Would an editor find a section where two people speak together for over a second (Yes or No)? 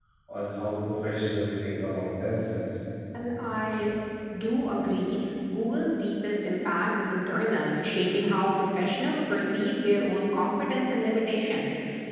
No